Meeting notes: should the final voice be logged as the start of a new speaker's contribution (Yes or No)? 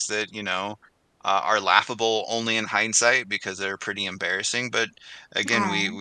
No